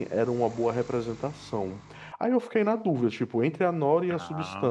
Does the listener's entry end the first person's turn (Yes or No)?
No